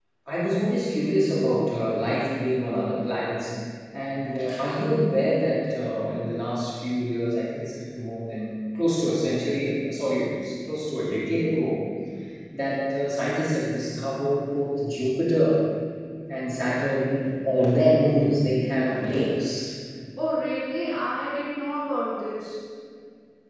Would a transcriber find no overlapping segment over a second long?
Yes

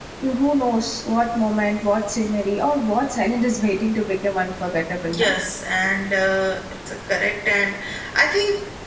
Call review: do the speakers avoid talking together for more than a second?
Yes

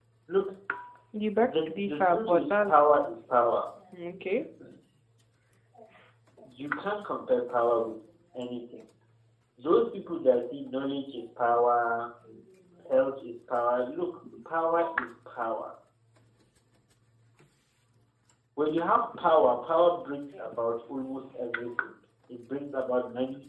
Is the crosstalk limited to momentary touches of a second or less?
No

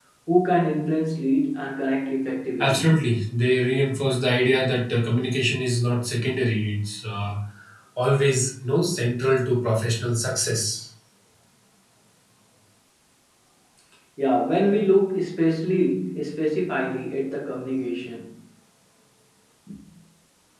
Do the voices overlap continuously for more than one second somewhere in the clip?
No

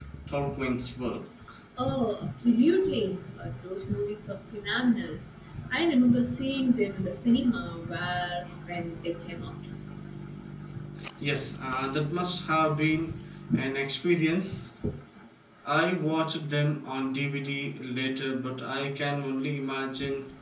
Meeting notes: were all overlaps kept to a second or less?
Yes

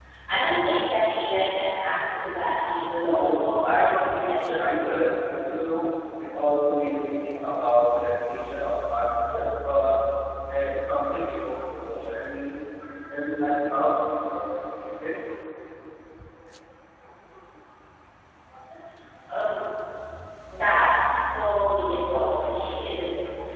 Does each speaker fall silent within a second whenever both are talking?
No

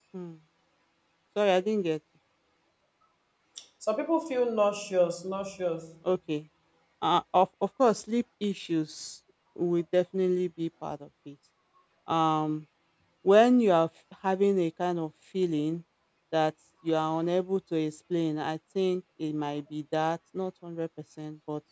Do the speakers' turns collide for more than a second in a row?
No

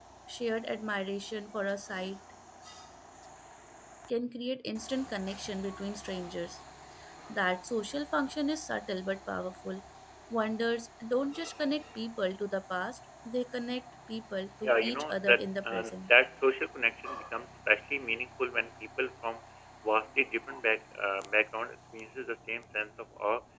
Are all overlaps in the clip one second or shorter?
No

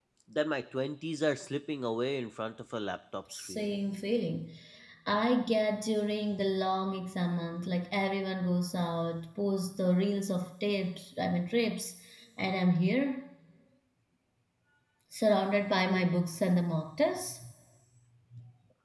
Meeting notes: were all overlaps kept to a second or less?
Yes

